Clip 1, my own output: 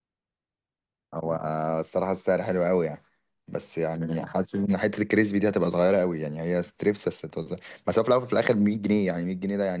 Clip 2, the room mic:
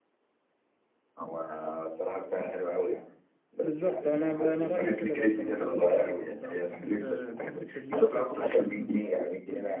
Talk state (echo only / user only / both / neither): both